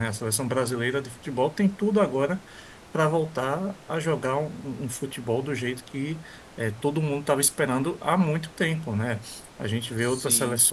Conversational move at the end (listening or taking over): listening